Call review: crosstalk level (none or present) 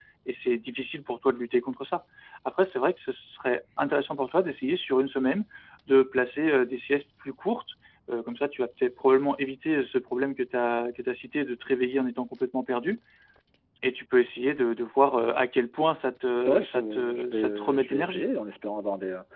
present